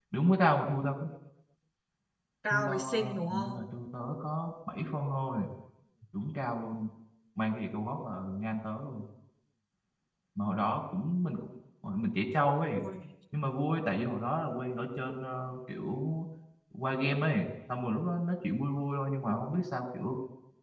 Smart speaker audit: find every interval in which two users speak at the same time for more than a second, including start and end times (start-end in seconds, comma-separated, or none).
2.5-3.7